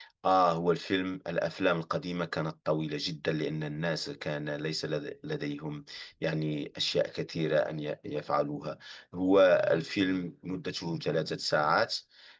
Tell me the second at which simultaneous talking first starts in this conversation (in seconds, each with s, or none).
none